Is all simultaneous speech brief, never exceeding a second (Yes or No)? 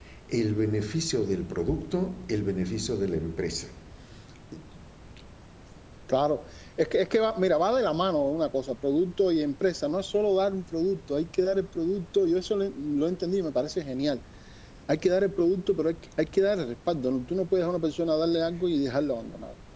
Yes